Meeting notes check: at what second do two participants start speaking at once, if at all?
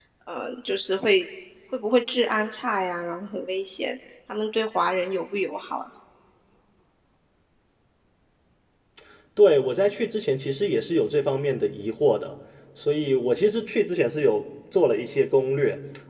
none

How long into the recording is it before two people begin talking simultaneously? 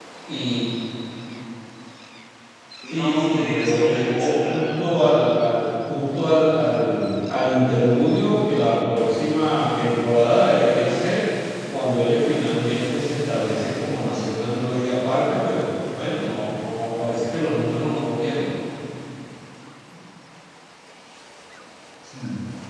2.9 s

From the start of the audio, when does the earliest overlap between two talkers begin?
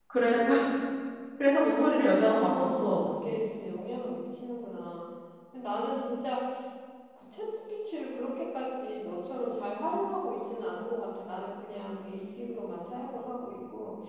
1.7 s

